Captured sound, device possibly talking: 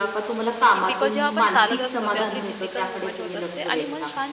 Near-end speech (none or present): present